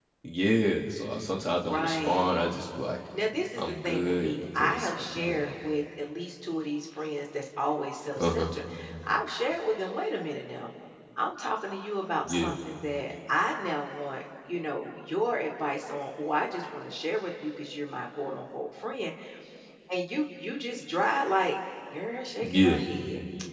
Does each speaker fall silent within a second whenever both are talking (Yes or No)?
No